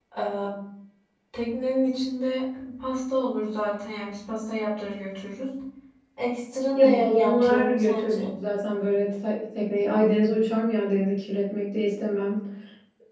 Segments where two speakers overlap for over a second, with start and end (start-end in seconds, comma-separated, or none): 6.7-8.3